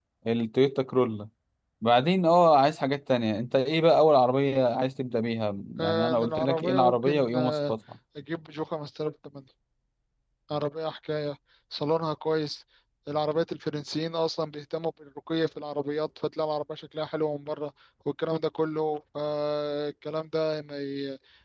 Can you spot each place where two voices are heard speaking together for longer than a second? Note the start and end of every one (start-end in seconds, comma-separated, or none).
5.8-7.7